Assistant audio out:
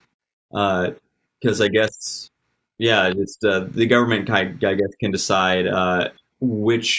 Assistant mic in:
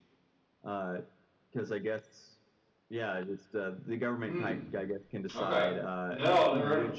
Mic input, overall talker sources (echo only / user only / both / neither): both